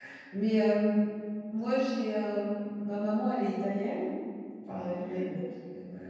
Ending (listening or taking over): listening